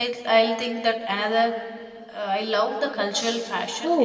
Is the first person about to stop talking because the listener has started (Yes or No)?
Yes